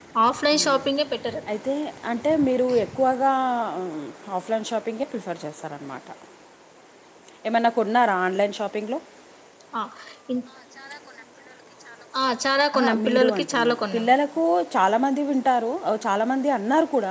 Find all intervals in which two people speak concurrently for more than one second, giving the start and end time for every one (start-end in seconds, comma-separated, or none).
12.8-14.1